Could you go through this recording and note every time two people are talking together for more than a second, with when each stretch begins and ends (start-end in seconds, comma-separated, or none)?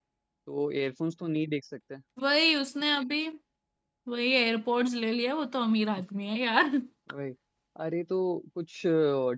none